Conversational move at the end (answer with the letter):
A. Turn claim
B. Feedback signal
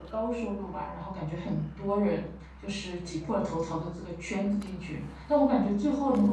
B